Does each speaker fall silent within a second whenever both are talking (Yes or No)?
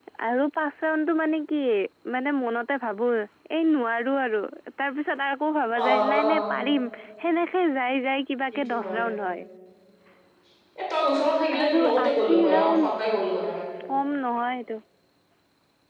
No